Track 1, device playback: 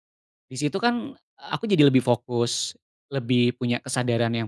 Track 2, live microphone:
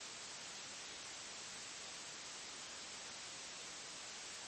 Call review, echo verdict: none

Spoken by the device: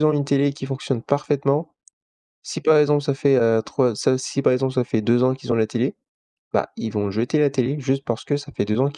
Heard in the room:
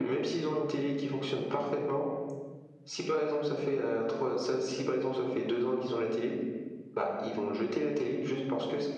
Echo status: present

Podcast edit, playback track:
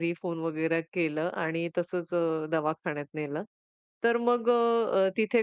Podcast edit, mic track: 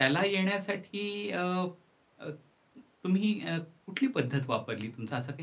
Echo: none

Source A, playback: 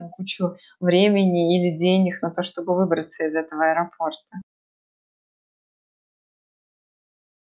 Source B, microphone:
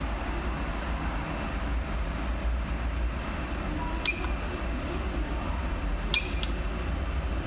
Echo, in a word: none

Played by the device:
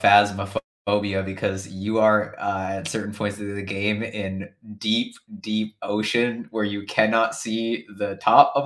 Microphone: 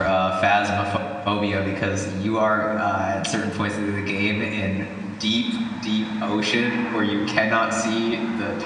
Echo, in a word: present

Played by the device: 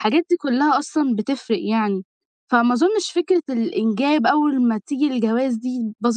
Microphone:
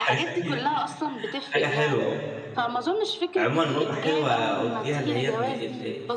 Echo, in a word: present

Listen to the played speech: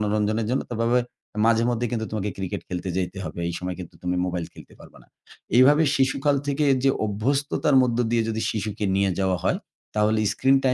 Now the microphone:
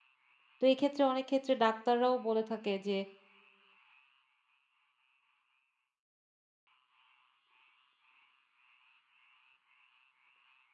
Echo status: none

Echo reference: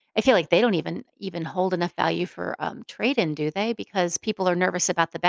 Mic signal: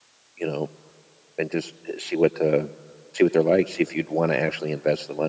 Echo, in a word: none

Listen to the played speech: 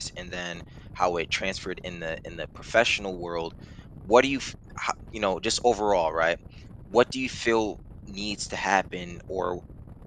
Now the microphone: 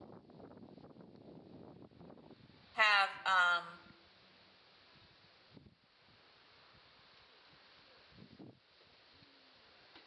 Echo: none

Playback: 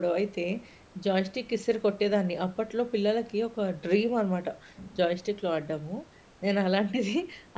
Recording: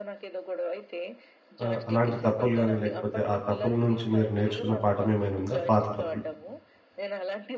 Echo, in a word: present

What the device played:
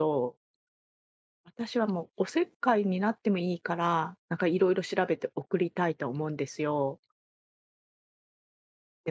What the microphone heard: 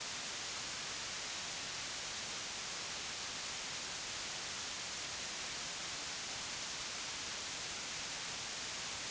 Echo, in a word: none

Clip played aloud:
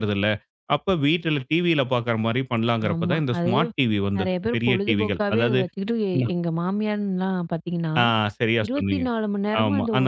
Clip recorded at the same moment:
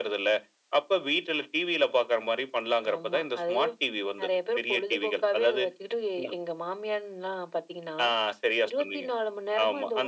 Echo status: present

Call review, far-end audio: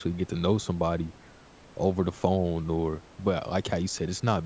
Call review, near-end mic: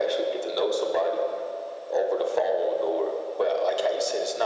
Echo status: present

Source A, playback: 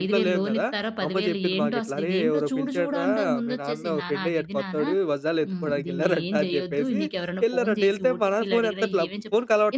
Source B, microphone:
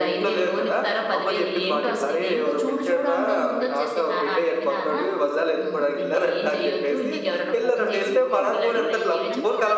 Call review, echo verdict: present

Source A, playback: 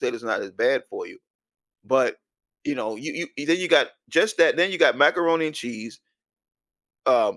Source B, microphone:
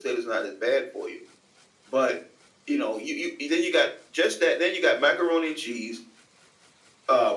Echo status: present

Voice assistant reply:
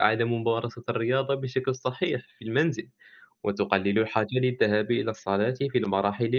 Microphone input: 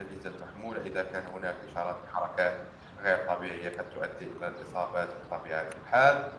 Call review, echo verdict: none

